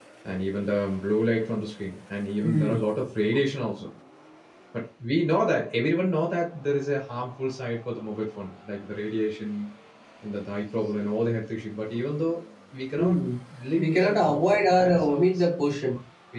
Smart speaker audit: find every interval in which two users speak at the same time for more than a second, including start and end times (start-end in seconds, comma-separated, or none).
13.8-15.4